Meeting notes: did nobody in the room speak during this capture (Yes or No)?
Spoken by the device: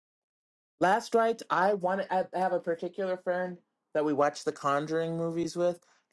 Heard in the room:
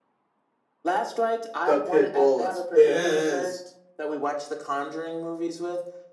No